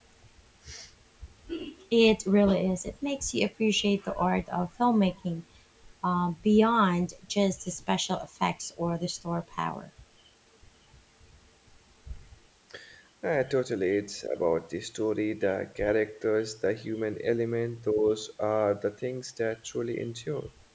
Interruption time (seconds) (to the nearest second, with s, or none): none